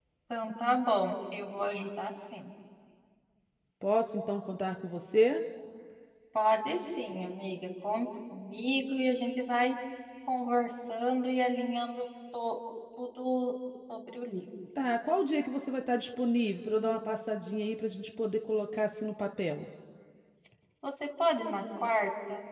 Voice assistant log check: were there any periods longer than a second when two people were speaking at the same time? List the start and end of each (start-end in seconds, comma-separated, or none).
none